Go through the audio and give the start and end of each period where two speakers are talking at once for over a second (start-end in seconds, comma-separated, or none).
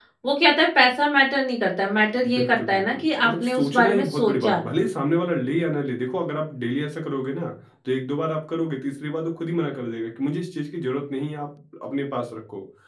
2.3-4.6